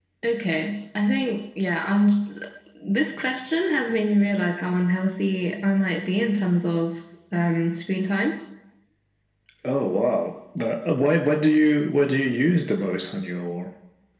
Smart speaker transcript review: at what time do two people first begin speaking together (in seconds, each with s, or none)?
none